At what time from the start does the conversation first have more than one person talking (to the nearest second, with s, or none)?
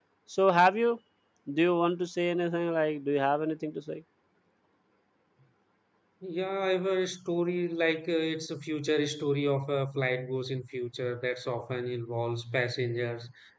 none